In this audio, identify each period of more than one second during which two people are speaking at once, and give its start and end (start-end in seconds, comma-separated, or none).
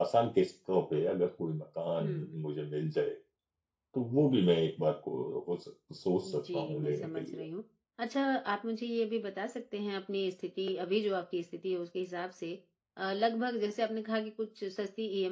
6.2-7.4